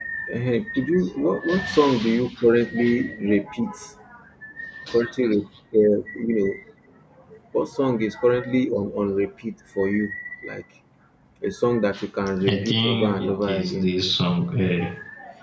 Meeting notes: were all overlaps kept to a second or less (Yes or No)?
No